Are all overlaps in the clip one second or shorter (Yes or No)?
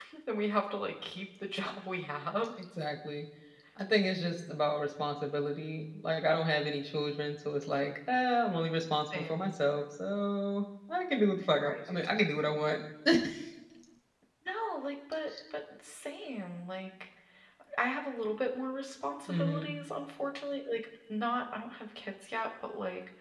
Yes